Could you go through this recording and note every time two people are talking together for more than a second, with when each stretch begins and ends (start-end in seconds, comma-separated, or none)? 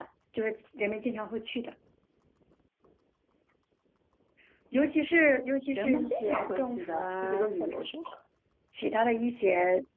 5.8-7.9